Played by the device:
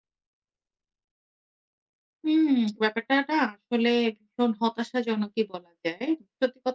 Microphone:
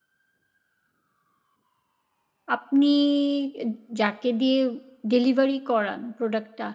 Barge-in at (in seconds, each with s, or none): 2.5 s